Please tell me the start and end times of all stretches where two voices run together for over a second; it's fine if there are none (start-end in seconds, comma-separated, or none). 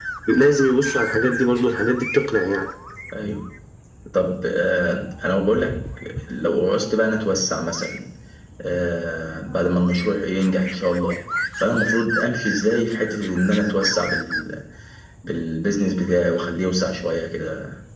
none